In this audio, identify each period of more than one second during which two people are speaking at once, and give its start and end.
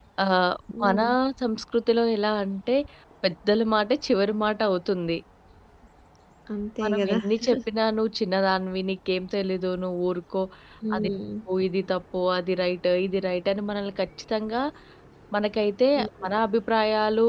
none

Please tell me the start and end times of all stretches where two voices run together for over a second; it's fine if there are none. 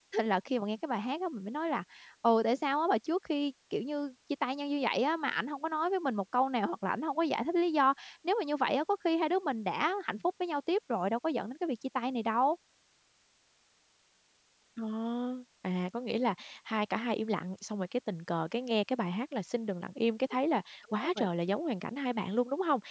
none

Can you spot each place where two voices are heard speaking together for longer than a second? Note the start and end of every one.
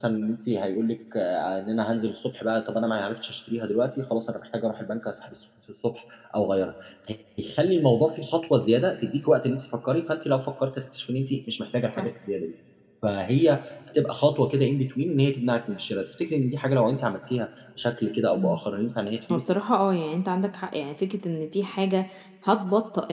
none

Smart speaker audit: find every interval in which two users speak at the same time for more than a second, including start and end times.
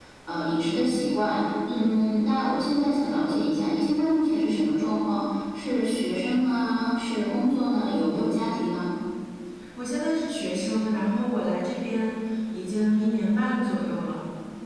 none

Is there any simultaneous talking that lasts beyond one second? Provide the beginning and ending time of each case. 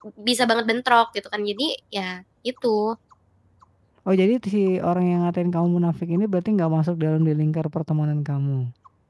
none

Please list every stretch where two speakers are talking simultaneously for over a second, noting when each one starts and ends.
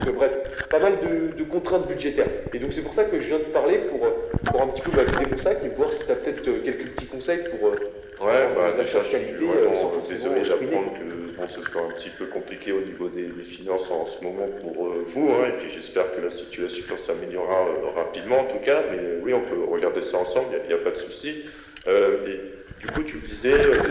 8.2-10.8

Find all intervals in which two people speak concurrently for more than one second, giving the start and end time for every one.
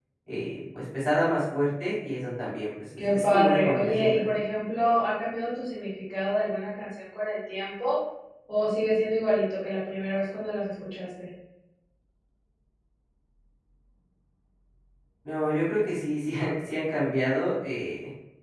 3.1-4.4

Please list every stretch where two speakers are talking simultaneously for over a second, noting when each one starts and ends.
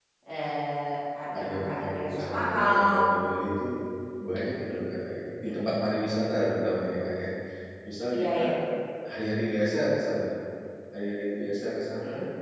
1.3-3.0

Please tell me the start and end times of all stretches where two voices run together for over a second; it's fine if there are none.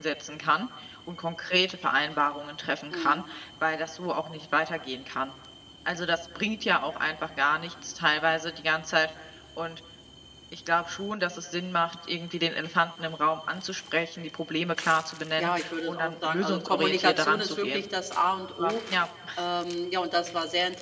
15.4-17.8

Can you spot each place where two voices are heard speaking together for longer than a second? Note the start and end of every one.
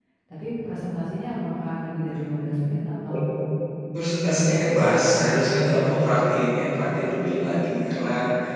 4.2-5.9

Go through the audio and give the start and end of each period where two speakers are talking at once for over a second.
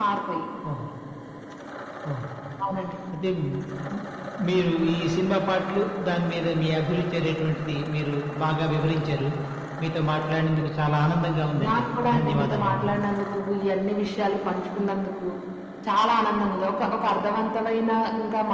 11.7-12.9

